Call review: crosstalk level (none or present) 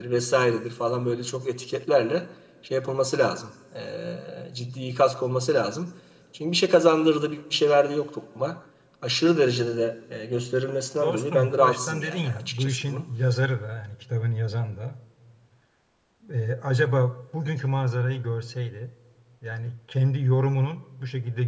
present